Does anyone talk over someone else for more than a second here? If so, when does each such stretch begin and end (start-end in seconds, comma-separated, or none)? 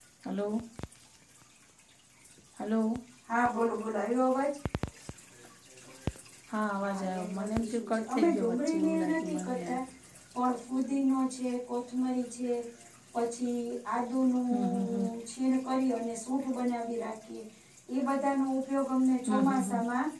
6.8-9.7